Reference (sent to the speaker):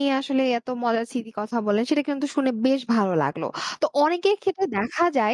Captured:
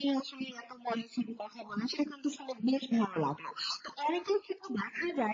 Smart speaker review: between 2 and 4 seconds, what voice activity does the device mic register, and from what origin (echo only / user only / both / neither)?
echo only